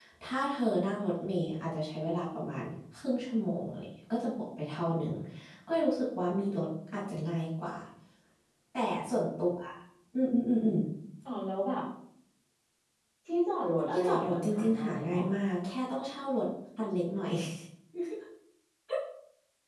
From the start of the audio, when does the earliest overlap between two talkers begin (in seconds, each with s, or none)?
13.9 s